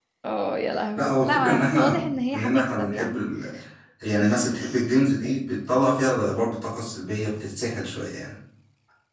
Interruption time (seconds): 1 s

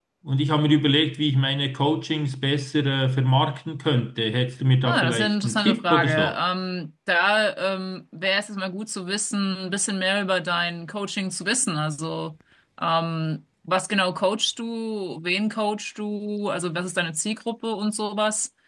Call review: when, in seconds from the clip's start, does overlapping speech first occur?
5 s

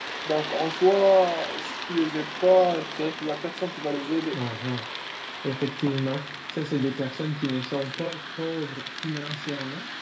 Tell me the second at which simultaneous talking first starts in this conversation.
none

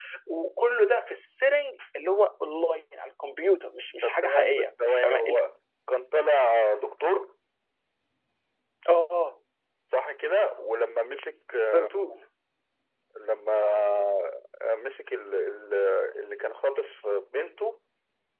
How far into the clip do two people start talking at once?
4 s

